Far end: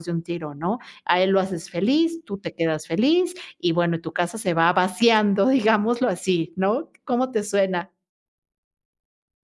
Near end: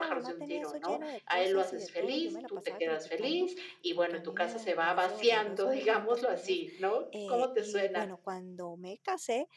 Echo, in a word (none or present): present